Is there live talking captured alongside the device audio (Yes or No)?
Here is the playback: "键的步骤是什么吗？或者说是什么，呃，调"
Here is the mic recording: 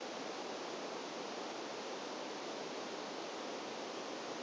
No